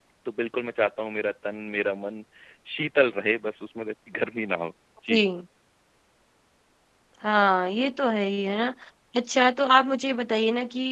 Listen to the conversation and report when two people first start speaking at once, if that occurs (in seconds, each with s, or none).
none